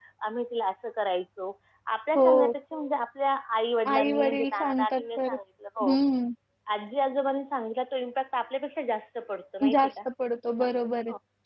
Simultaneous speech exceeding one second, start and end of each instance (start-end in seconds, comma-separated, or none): 3.9-5.3